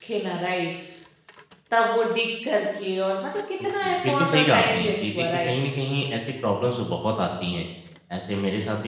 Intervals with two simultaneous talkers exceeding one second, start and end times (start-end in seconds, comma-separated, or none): 3.8-5.5